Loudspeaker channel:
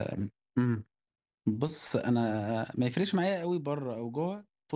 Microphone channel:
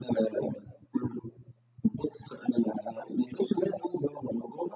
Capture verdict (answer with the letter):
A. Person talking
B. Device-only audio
B